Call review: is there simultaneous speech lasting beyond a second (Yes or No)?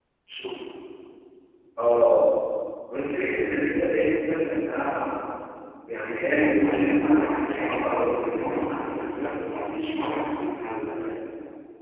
Yes